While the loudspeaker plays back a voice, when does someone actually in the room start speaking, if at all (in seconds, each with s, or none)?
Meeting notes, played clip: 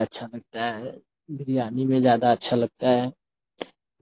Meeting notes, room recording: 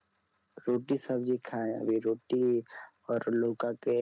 0.6 s